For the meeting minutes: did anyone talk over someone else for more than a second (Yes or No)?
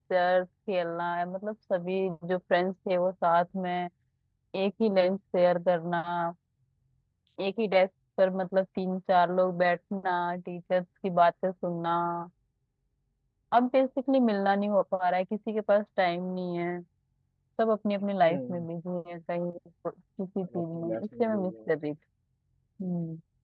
Yes